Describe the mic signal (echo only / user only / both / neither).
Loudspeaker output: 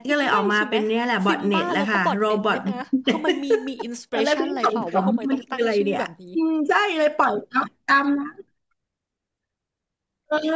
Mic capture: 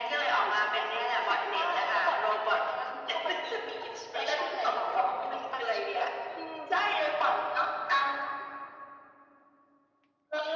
echo only